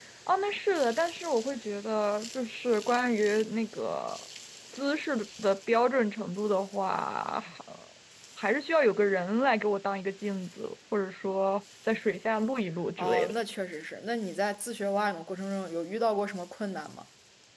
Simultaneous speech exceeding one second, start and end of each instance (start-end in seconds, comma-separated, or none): none